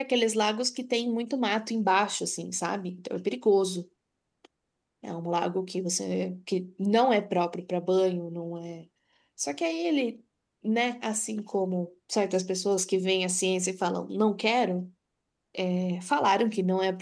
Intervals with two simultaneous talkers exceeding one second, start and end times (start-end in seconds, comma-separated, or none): none